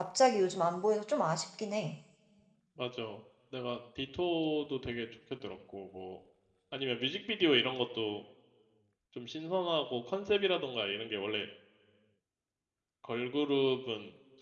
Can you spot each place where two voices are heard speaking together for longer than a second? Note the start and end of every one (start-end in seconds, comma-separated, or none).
none